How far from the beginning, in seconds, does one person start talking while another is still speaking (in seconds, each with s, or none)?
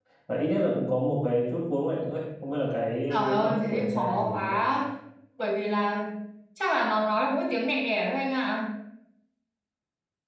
3.1 s